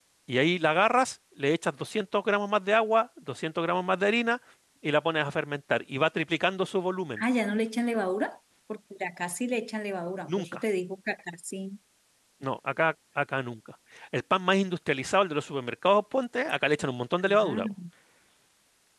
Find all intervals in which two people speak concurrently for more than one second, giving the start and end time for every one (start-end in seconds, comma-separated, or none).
none